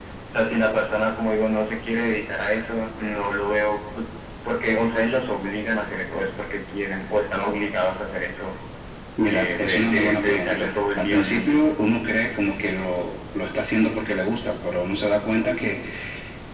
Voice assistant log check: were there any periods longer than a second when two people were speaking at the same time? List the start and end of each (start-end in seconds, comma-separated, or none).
9.3-11.7